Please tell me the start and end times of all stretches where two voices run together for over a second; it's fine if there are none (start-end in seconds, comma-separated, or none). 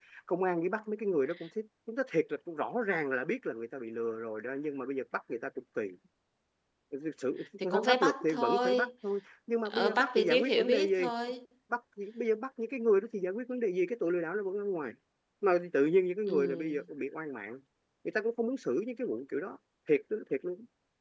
7.6-8.9, 9.7-11.1